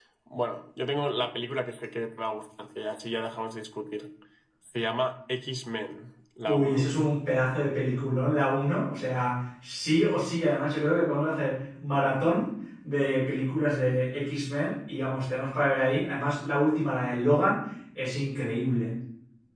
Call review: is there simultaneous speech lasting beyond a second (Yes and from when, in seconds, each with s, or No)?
No